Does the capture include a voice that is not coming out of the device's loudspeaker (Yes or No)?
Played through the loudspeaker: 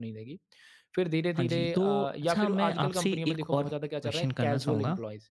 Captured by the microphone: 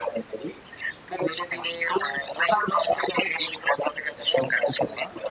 No